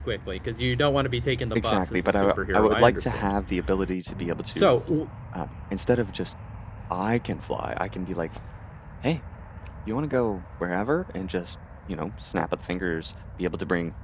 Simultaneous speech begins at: 1.6 s

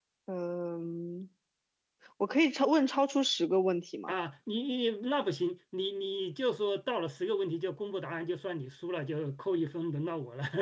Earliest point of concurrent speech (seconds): none

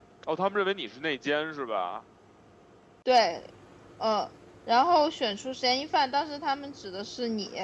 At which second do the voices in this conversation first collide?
none

